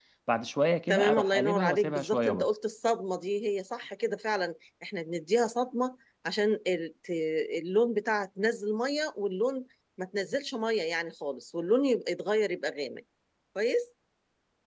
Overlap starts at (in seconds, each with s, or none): 0.9 s